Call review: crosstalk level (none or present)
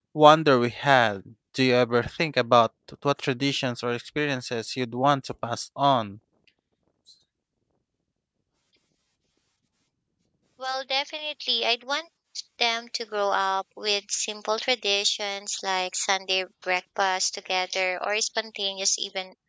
none